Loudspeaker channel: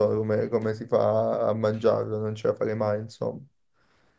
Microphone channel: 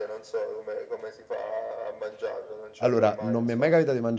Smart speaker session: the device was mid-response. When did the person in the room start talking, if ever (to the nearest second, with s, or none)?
3 s